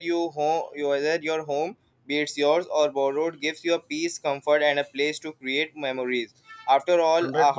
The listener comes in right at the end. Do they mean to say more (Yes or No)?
No